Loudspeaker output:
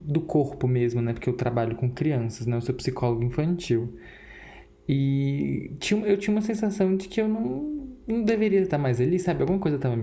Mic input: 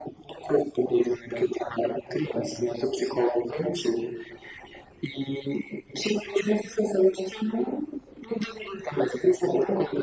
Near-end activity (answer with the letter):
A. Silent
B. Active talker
A